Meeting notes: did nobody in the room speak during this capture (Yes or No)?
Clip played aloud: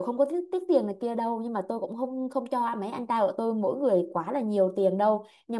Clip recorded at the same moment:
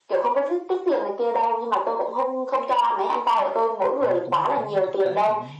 No